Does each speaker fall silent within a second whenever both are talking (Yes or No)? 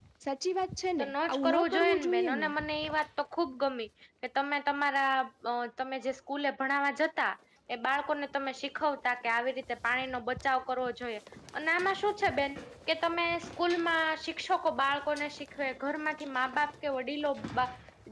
No